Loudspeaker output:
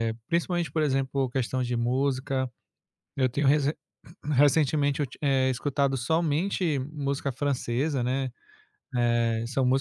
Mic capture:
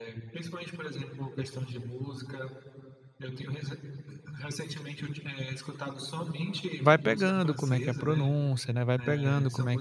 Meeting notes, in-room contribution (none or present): present